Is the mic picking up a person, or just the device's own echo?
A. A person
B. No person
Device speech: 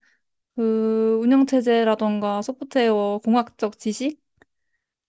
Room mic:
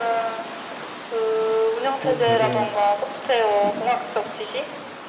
A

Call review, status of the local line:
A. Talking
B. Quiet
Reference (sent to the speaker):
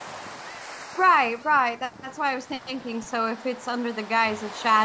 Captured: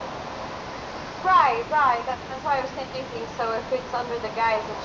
B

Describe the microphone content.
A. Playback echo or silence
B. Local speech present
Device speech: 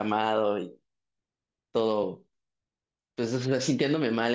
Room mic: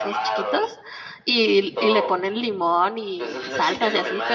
B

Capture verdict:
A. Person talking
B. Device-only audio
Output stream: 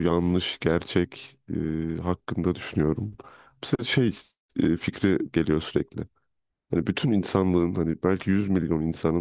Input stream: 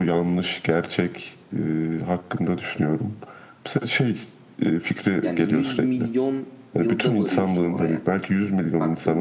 A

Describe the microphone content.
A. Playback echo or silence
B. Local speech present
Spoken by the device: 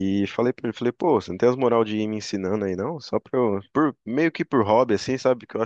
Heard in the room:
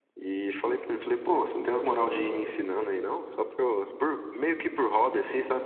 A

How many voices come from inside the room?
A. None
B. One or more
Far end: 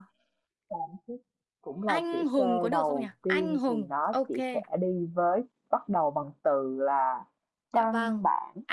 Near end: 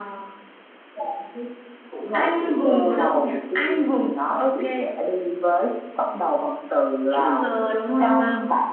B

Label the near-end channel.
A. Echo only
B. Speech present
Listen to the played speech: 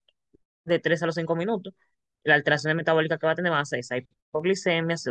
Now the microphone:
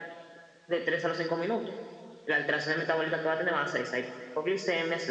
A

